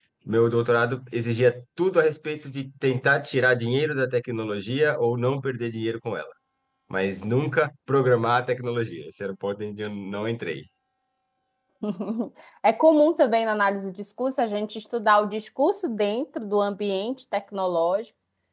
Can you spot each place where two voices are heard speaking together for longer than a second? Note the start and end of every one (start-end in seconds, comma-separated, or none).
none